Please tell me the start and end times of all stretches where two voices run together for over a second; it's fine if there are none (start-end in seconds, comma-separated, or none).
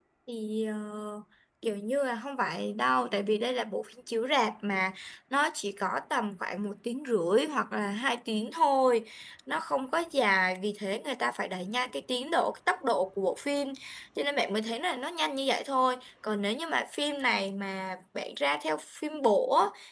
none